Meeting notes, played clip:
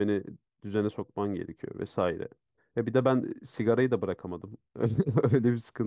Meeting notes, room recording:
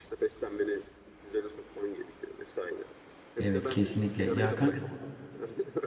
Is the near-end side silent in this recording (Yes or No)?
No